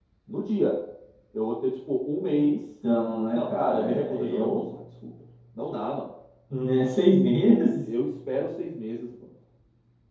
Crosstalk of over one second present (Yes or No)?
Yes